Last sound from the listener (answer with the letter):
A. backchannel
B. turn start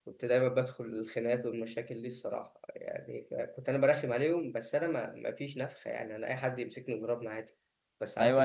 B